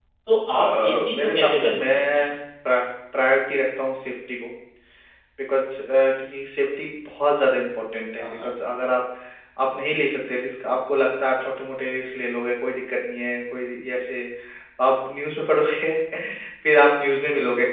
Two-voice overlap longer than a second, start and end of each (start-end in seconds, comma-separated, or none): 0.5-2.2